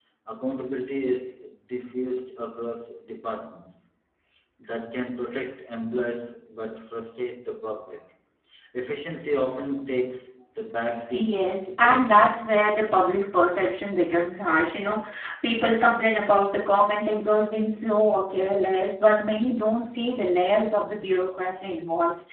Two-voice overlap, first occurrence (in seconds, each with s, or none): 11.1 s